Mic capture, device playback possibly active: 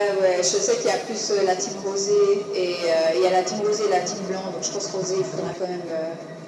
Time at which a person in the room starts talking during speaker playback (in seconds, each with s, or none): none